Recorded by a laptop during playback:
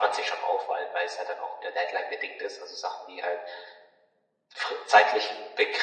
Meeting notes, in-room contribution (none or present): none